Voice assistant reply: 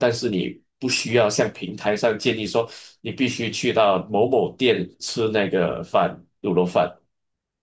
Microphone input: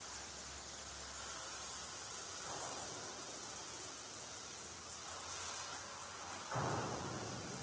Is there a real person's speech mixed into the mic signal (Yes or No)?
No